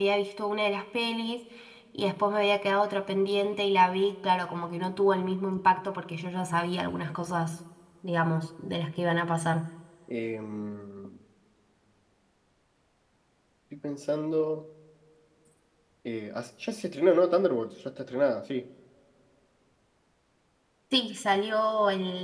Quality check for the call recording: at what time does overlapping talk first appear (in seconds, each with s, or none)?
none